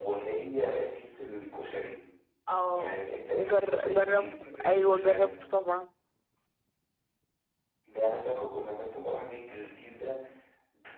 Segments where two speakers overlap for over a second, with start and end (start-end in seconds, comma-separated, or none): 3.5-5.5